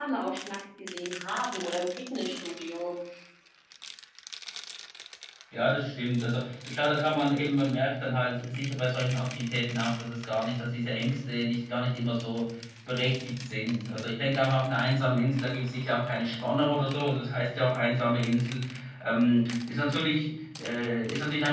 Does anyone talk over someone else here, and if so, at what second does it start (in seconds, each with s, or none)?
none